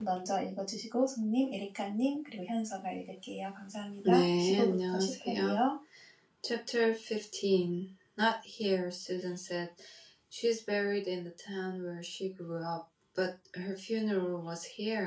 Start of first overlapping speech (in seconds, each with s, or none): 4.0 s